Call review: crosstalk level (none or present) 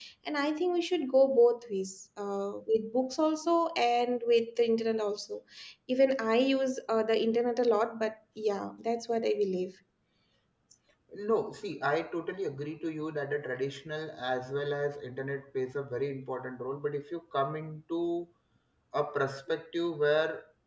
none